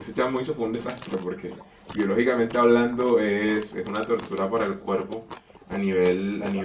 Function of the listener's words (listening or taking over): listening